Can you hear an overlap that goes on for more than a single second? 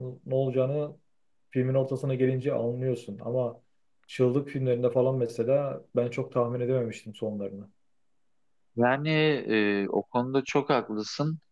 No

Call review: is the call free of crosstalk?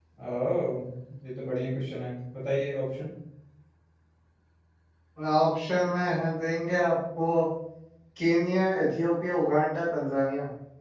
Yes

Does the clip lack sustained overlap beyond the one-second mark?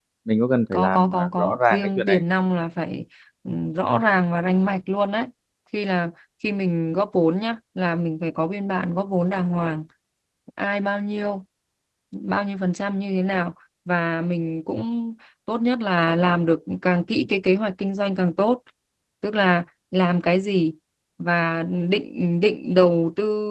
No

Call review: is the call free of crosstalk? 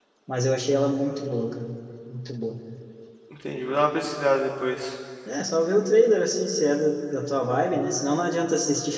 Yes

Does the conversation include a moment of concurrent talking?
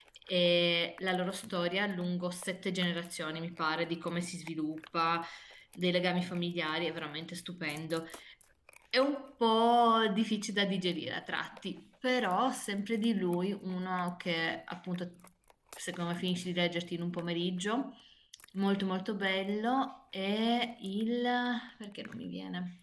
No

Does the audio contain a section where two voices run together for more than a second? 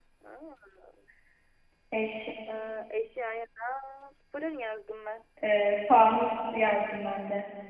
No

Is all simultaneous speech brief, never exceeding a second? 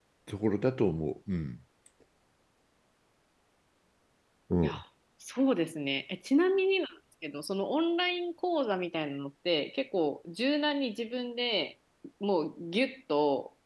Yes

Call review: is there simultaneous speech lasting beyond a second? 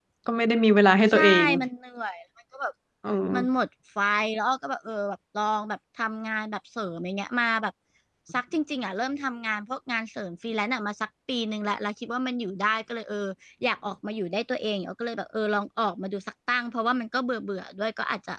No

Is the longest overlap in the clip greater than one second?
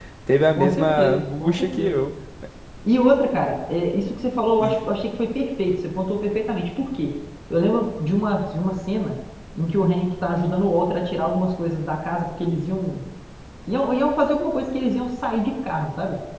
Yes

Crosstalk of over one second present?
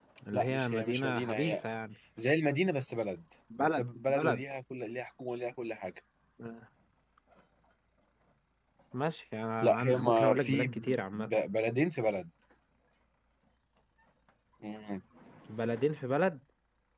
Yes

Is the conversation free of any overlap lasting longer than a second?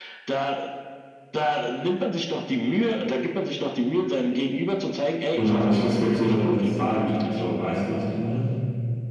No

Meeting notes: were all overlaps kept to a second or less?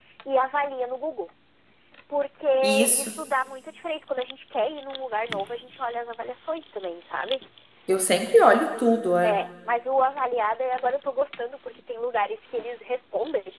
Yes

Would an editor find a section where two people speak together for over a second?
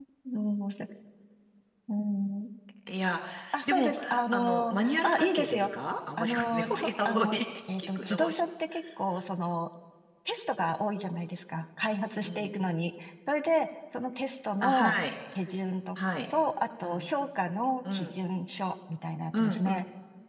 Yes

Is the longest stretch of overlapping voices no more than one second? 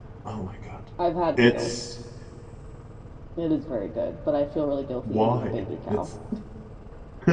Yes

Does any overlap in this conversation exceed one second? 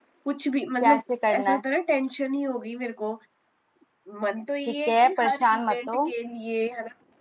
Yes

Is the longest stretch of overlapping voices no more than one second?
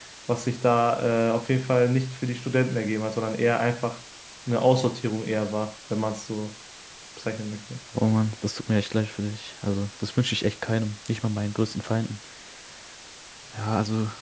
Yes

